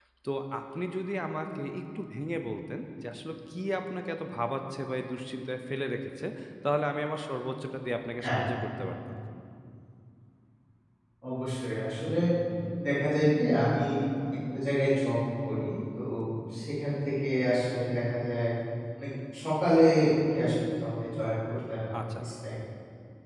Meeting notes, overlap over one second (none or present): none